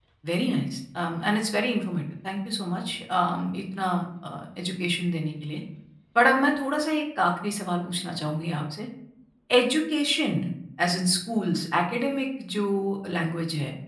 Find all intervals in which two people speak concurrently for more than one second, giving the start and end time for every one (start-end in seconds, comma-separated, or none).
none